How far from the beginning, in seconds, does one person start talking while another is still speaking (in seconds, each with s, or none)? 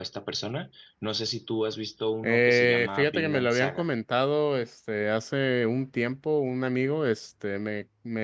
2.2 s